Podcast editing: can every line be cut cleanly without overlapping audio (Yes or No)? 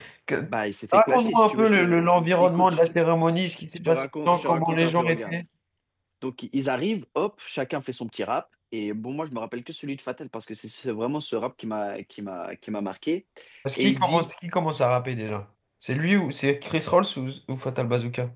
No